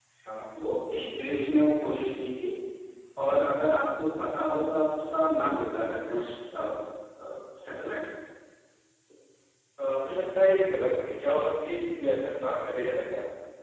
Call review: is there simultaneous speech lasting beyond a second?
No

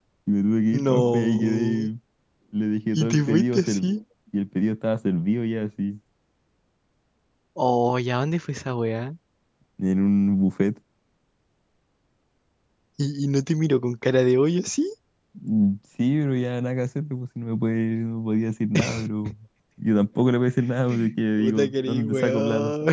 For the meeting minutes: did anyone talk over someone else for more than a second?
Yes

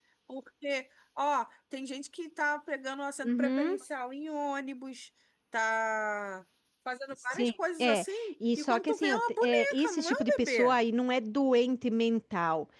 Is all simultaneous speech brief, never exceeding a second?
No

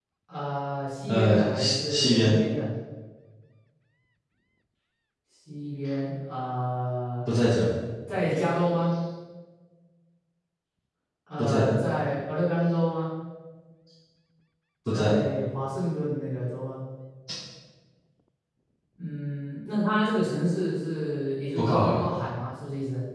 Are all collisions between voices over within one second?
No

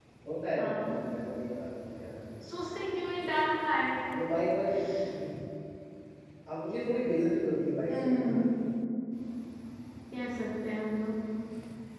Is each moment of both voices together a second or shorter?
Yes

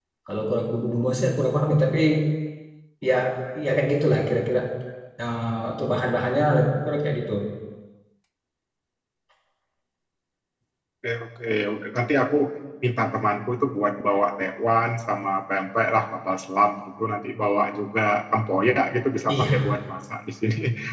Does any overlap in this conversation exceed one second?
No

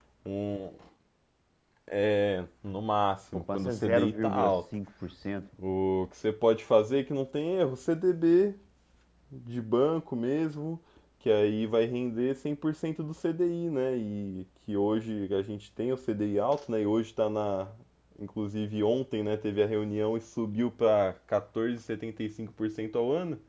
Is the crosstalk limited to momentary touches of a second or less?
No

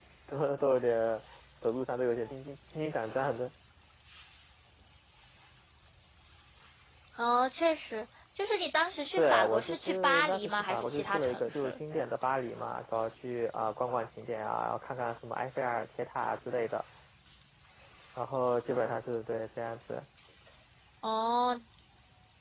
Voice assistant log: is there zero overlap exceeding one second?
No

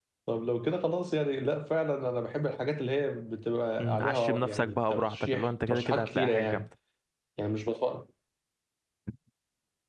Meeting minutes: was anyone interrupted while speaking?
Yes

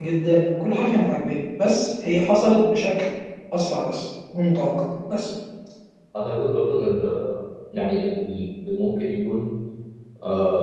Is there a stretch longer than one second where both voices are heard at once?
No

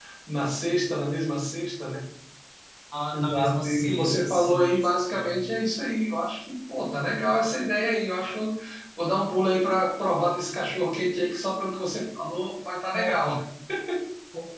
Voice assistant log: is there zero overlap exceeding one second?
No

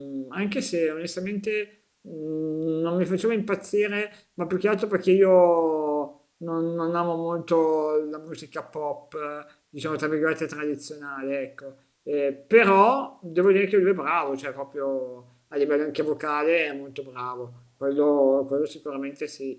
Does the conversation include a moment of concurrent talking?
No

